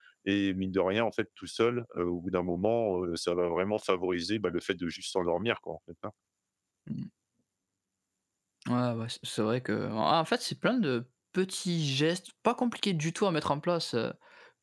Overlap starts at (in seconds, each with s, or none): none